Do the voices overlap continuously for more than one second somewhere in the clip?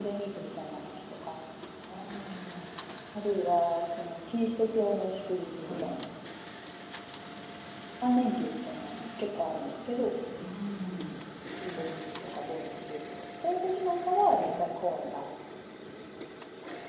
No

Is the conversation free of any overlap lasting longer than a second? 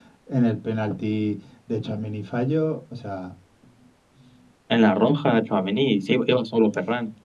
Yes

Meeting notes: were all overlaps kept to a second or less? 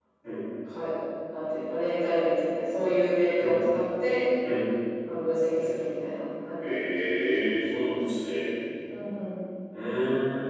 Yes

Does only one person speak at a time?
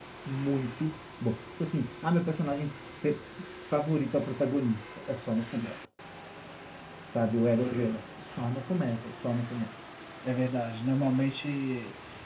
Yes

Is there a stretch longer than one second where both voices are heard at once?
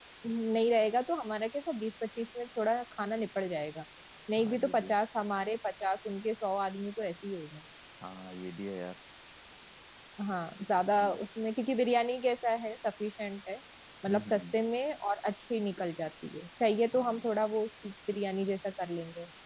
No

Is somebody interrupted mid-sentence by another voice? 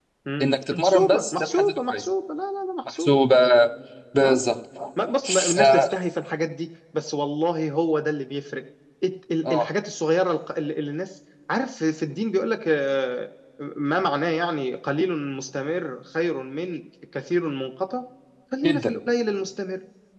Yes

